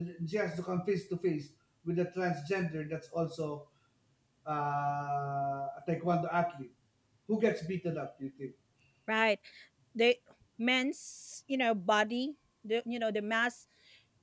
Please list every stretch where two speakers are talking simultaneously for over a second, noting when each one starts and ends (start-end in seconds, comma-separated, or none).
none